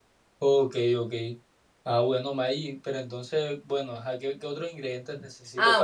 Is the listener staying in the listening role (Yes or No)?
No